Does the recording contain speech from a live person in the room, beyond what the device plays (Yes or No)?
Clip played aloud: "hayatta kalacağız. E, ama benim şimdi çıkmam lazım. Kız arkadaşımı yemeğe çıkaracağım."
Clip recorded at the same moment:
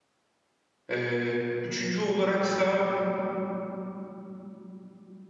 Yes